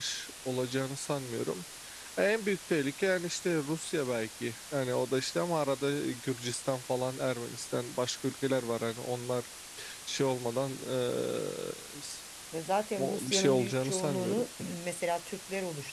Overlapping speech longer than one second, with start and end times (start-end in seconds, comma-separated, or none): 13.0-14.5